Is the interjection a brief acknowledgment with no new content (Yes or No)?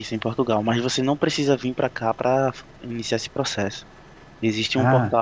Yes